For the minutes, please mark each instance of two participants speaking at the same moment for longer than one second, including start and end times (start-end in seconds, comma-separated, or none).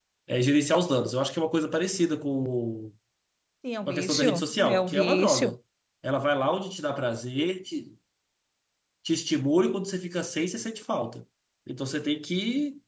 3.9-5.5